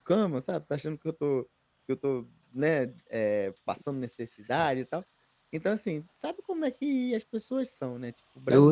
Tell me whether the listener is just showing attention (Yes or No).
No